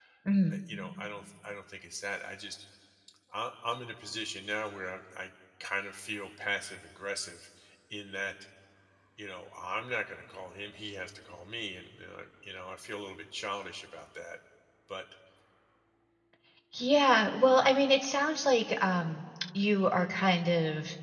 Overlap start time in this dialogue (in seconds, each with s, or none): none